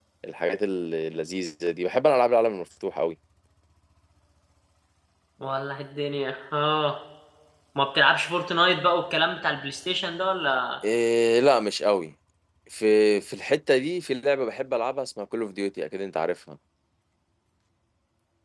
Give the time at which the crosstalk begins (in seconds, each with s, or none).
none